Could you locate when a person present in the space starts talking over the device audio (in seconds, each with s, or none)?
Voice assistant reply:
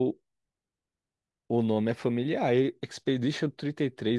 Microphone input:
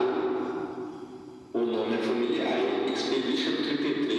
none